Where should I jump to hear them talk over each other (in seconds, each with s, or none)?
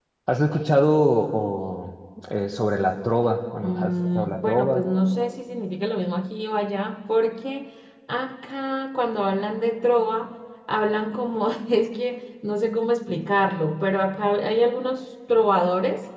3.6 s